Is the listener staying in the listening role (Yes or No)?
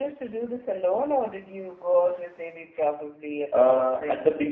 No